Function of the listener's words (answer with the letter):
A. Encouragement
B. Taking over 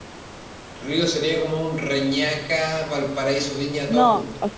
B